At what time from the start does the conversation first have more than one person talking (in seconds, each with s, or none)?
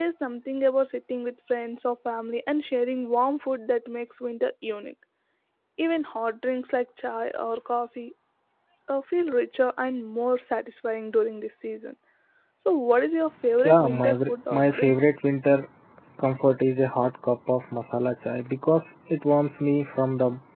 13.6 s